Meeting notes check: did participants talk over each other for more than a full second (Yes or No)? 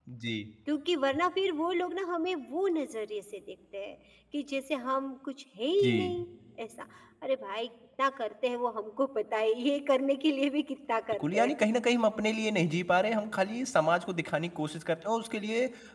No